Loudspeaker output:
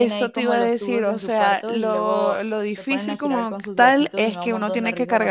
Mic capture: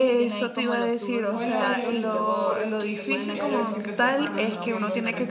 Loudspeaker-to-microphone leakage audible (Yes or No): Yes